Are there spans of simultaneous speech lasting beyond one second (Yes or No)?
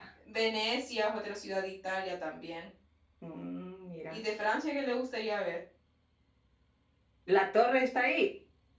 No